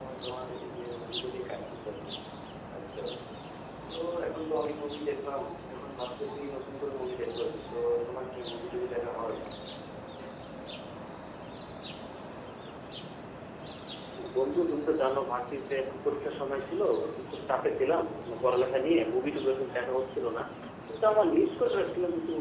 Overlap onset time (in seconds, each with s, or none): none